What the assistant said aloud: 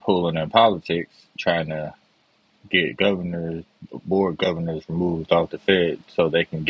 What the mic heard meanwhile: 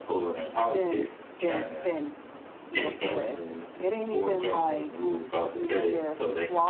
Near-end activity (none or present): present